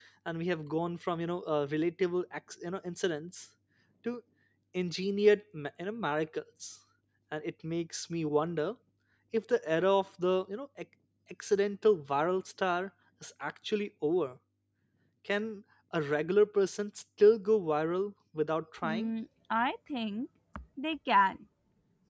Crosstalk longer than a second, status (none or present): none